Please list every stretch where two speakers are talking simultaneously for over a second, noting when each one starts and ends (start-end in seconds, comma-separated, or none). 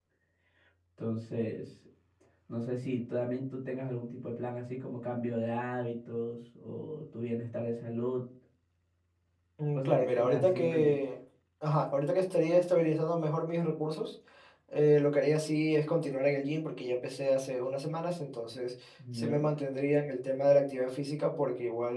9.8-11.0